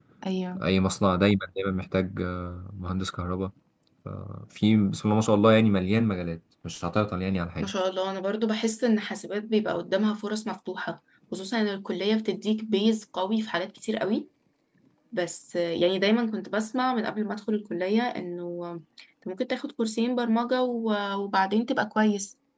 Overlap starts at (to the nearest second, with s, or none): none